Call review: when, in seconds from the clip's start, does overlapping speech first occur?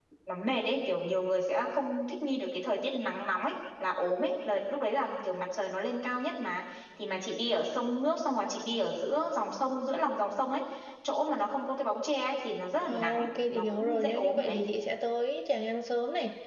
13 s

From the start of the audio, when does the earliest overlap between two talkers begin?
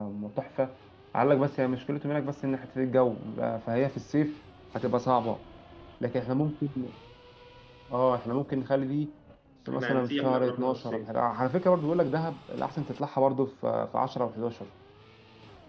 10 s

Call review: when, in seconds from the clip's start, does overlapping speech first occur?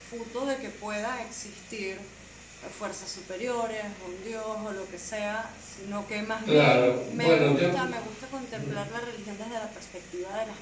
6 s

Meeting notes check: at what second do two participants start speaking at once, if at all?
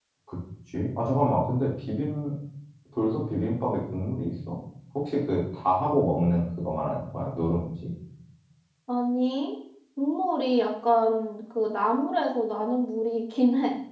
none

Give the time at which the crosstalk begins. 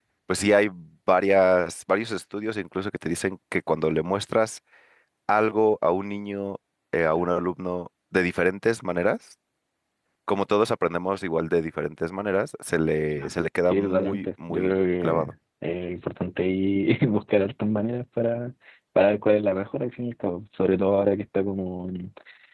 13 s

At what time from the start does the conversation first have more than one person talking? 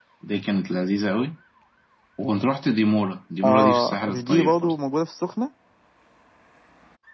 3 s

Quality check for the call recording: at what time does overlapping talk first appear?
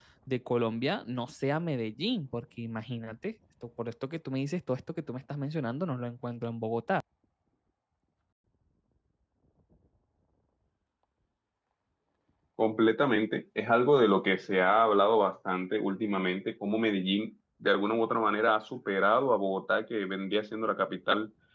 none

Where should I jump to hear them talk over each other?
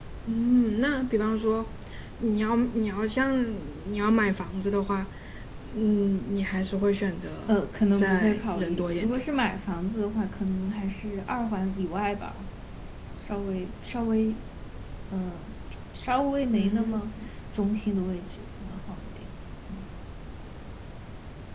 8 s

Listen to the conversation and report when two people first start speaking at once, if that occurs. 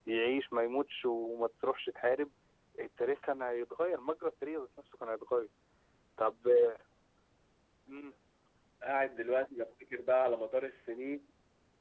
none

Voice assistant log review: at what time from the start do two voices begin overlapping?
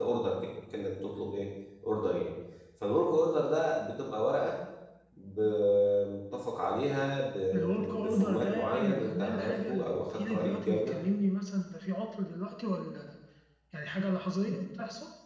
8 s

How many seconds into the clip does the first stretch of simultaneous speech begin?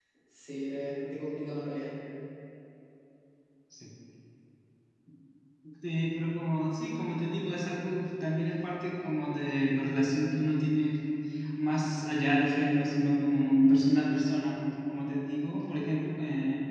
none

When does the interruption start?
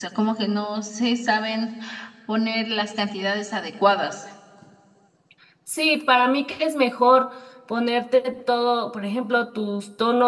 none

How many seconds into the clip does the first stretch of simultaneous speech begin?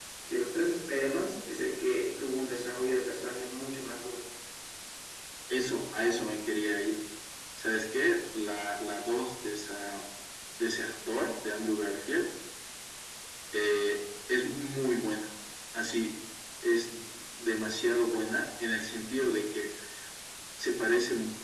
none

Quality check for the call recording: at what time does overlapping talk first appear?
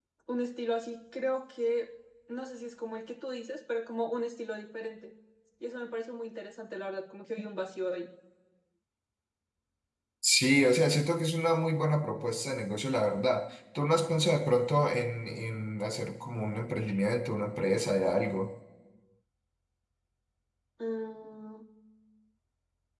none

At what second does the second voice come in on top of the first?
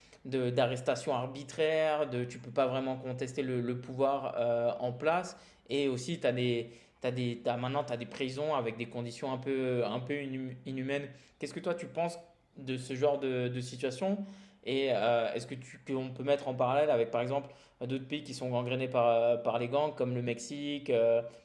none

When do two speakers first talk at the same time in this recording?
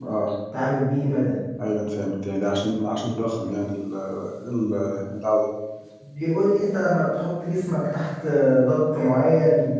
none

